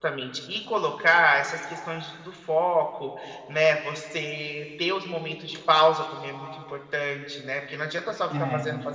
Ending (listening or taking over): listening